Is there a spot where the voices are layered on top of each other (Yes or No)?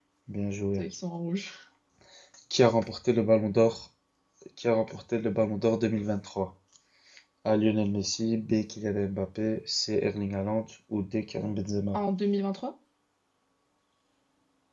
No